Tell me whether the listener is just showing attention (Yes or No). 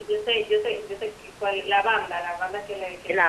No